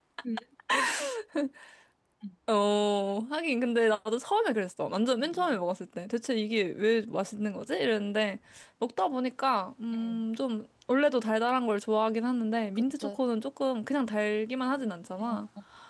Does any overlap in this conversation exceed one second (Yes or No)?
No